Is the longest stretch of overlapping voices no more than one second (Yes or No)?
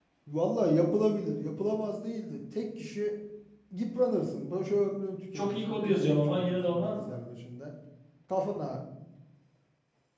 No